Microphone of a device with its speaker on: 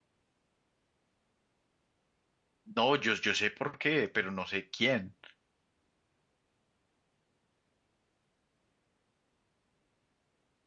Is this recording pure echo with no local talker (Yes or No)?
No